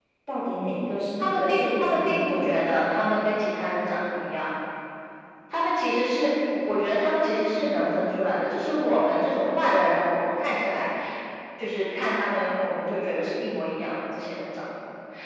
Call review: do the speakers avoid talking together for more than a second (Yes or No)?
No